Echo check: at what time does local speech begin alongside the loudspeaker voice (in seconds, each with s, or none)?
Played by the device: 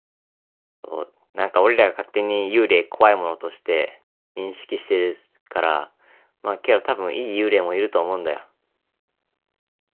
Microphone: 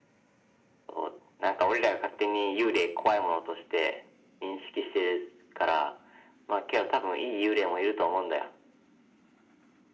none